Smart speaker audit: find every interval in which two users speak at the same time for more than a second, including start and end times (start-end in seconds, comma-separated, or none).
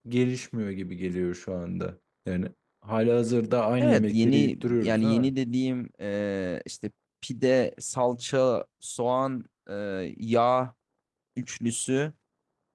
3.8-5.3